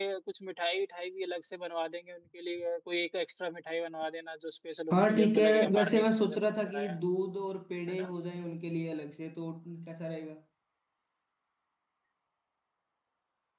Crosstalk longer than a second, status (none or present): present